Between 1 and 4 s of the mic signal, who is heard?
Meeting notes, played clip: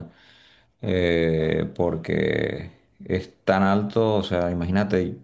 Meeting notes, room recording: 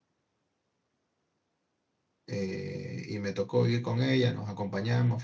user only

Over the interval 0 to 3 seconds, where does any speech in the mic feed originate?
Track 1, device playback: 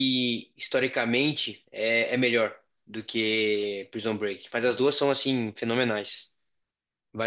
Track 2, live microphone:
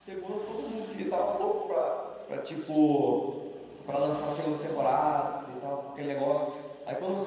user only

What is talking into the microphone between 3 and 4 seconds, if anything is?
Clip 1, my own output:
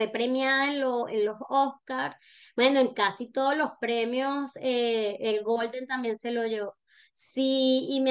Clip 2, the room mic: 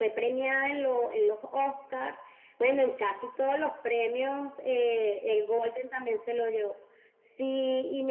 echo only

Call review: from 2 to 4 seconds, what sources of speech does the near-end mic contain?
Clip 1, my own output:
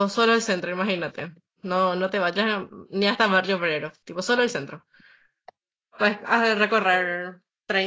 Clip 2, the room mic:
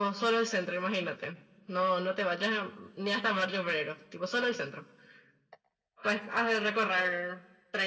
echo only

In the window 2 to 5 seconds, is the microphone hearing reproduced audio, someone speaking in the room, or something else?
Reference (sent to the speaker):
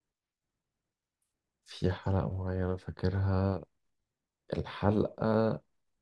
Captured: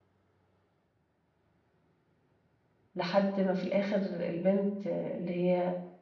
user only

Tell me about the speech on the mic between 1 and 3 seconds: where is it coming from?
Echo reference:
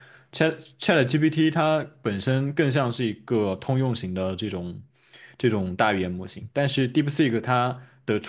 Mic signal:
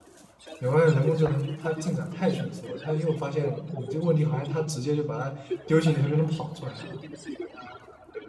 both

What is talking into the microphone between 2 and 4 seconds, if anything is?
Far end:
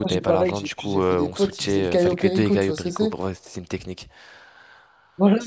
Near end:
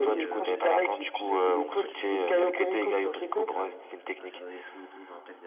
both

